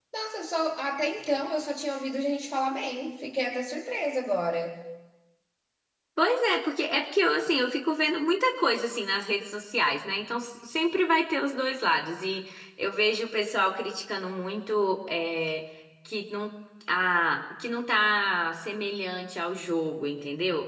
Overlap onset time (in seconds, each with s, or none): none